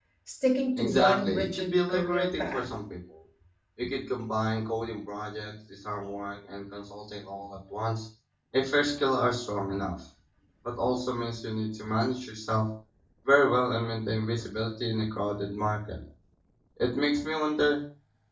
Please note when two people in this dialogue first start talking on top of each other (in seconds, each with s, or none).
0.8 s